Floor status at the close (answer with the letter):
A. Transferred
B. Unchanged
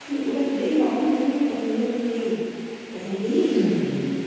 B